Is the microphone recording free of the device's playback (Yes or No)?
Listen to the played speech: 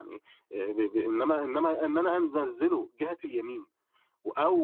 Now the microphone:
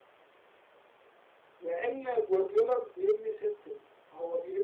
Yes